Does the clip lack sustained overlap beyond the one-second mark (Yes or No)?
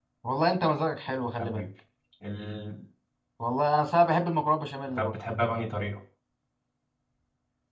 Yes